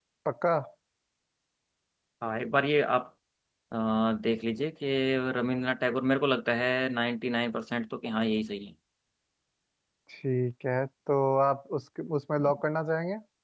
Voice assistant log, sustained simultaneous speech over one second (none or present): none